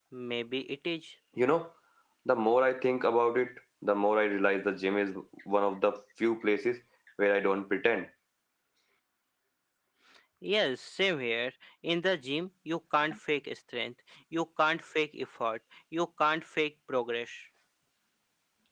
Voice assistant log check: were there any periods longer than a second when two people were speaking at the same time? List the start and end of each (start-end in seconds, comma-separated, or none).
none